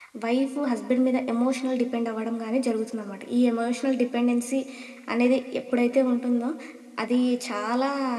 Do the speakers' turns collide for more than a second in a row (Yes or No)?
No